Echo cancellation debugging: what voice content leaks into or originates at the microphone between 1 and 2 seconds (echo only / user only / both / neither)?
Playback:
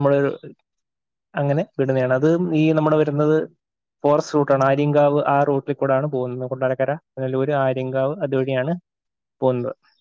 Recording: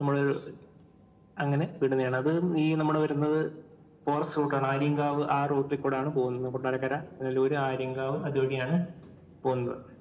echo only